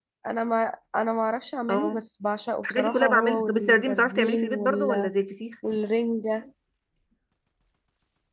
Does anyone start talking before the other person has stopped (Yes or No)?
Yes